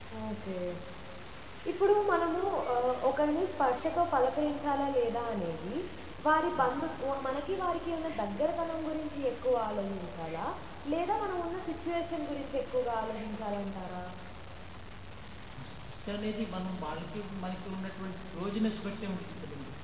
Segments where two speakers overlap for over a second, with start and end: none

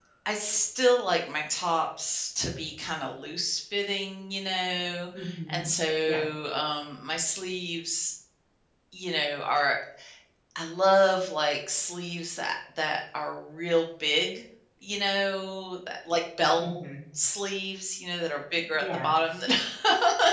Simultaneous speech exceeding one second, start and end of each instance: none

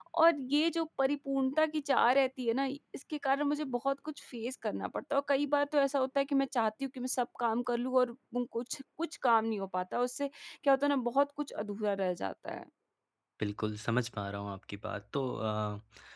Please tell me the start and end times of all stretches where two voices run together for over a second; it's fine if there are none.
none

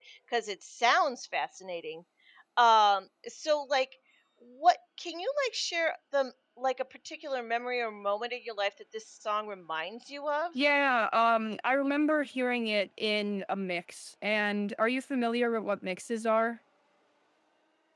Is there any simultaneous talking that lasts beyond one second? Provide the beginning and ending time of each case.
none

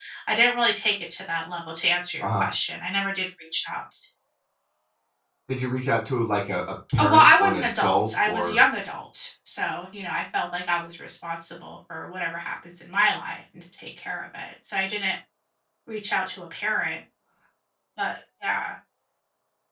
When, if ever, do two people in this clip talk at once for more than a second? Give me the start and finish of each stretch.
7.0-8.6

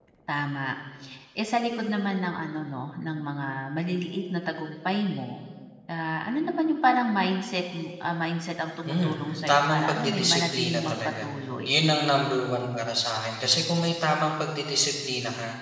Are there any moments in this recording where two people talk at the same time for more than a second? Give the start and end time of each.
9.5-11.2

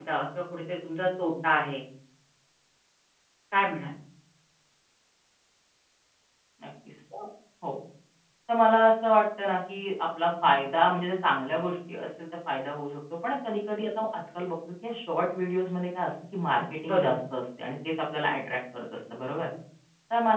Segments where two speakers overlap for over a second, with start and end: none

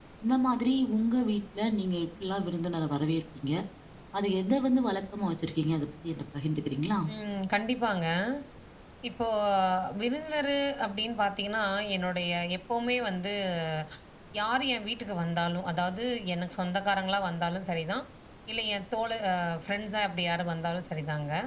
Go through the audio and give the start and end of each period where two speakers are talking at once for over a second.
none

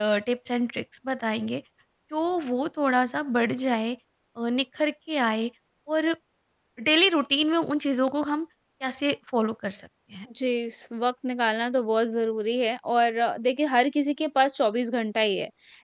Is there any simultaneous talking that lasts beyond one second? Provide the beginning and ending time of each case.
none

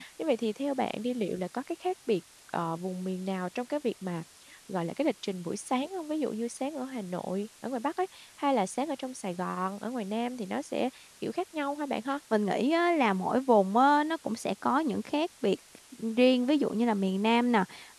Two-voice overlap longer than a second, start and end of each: none

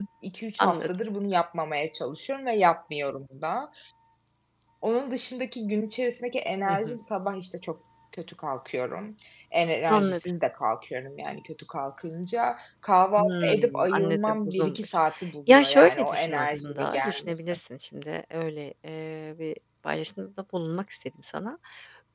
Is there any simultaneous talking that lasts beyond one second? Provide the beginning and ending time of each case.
13.2-14.9, 15.5-17.3

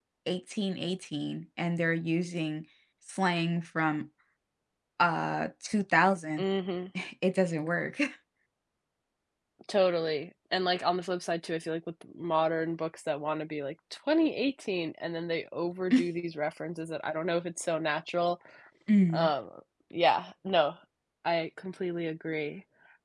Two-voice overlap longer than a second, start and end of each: none

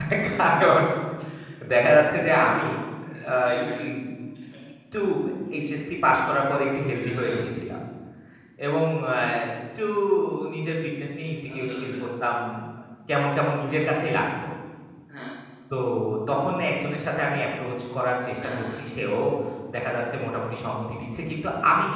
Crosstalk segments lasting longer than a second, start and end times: none

